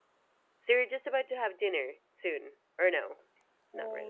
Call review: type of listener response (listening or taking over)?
taking over